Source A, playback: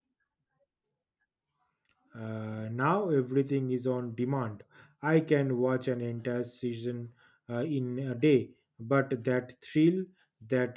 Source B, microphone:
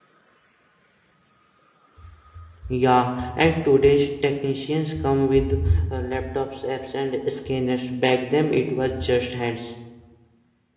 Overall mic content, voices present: user only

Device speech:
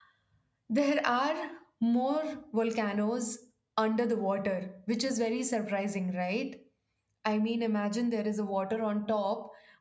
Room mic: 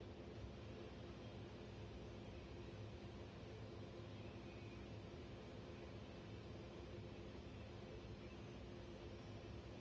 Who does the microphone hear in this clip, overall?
neither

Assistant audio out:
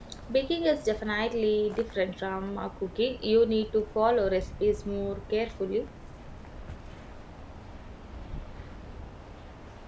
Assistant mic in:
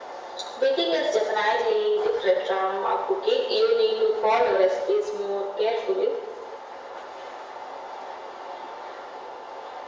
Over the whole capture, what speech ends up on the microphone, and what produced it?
echo only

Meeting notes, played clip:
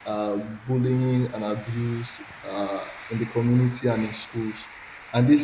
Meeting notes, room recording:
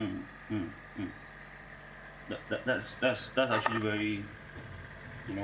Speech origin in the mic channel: user only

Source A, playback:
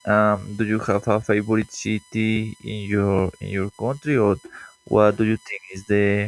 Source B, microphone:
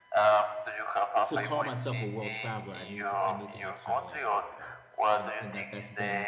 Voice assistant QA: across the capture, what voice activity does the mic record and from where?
both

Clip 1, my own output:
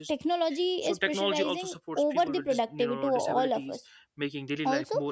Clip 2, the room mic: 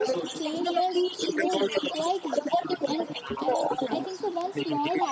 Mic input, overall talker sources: both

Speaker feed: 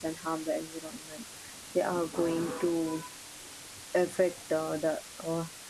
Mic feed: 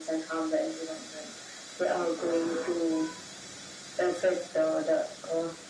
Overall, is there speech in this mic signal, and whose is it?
echo only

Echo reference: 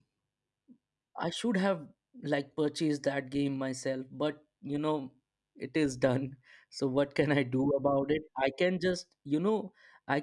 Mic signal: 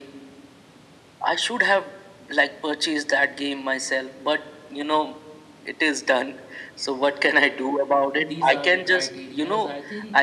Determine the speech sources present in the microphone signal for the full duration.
both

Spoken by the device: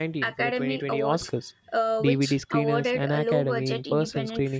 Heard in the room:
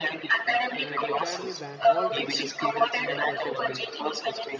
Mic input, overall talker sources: both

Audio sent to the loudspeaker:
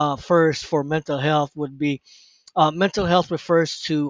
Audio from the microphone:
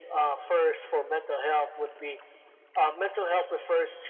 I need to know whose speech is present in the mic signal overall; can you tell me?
echo only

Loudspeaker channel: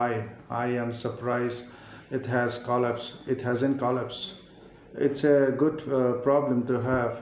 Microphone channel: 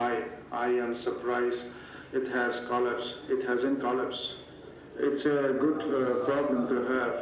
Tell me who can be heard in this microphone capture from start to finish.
both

